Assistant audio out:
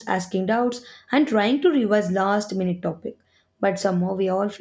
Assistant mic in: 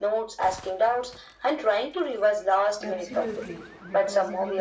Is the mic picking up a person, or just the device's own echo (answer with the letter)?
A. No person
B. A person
B